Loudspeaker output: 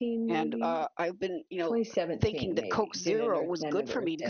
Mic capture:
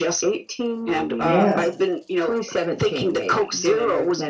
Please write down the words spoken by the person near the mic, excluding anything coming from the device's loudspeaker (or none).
Yes.